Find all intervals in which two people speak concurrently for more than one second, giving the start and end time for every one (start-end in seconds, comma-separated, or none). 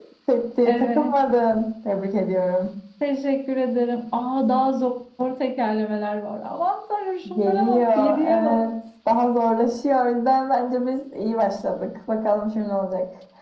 7.3-8.6